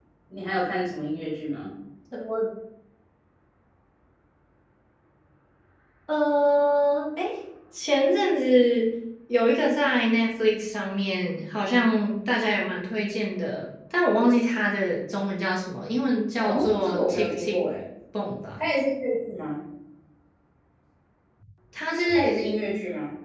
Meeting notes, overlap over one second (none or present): present